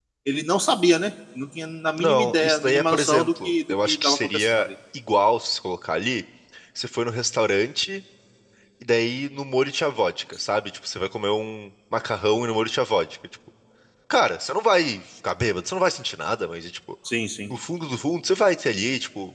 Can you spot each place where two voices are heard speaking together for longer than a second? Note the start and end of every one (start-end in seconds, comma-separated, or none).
2.0-4.7